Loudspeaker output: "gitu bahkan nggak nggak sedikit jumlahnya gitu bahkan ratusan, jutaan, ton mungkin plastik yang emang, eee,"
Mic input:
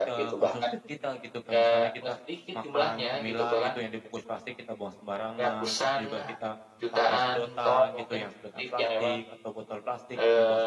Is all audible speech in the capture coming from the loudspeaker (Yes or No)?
No